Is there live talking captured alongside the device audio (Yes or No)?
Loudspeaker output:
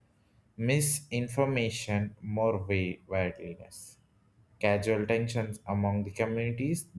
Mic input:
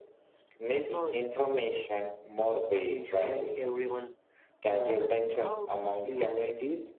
Yes